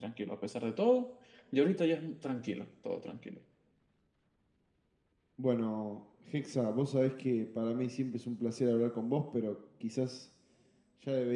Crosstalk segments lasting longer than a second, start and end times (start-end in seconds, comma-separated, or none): none